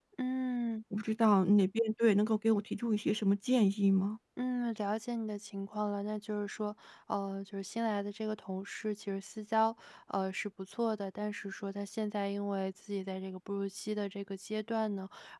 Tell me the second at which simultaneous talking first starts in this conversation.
none

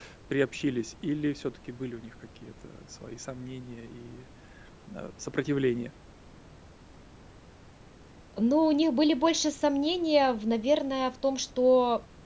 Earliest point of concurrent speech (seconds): none

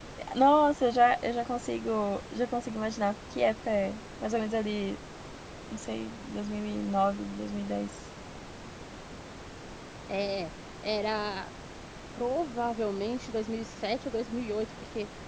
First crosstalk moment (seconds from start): none

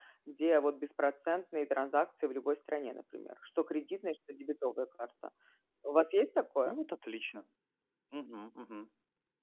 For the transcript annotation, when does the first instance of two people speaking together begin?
none

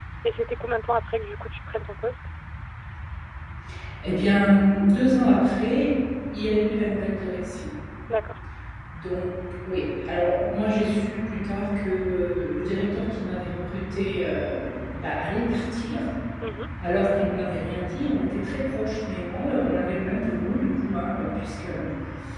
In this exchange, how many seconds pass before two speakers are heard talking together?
none

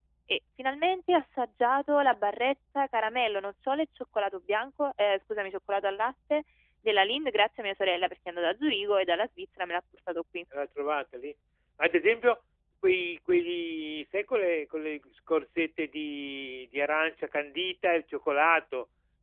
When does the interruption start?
none

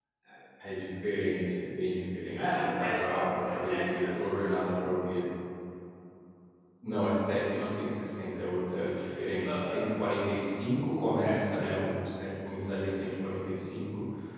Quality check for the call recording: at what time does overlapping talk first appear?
2 s

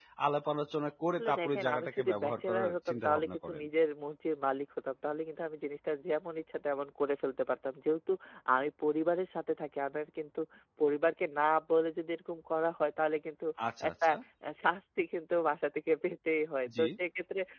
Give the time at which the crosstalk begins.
1 s

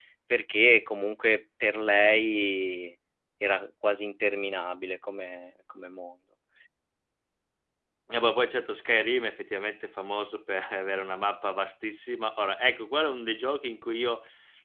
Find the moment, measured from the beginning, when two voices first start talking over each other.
none

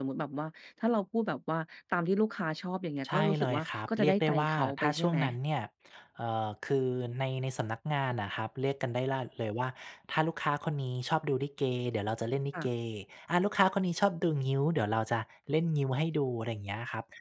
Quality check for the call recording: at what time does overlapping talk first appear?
3 s

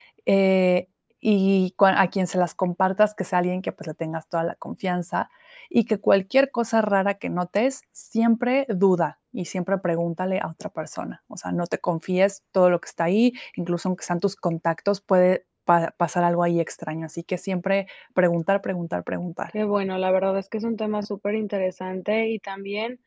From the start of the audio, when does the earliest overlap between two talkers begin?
none

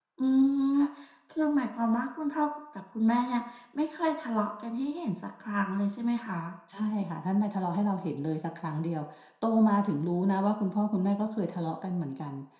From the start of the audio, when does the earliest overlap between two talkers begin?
none

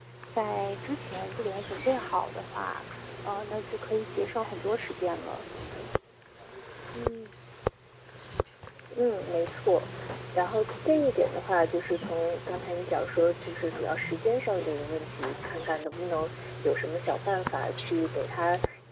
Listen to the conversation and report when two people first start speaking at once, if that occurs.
none

